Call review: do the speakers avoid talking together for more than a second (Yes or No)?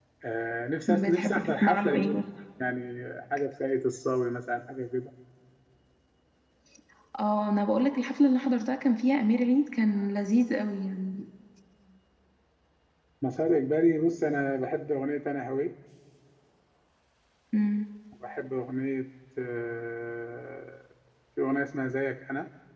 No